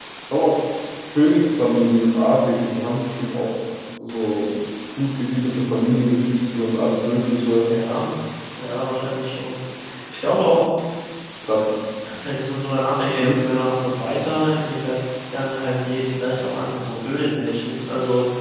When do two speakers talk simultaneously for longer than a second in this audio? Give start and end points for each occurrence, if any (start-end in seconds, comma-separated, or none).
none